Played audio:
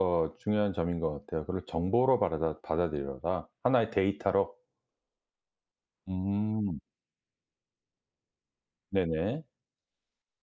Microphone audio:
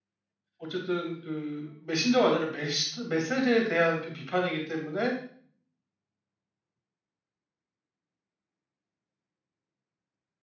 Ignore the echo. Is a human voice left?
Yes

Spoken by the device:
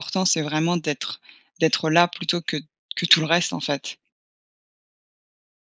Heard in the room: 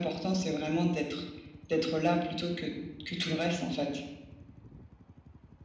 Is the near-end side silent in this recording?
Yes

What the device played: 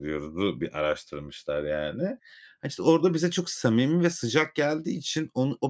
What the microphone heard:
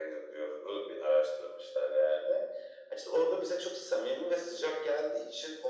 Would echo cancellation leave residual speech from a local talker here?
No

